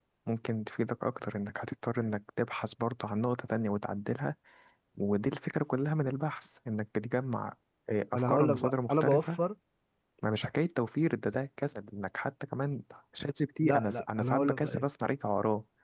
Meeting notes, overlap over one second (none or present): present